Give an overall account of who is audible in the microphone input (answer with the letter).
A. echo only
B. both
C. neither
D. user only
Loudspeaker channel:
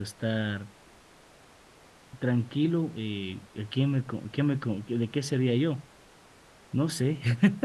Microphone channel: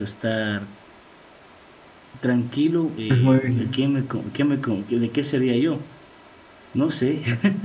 B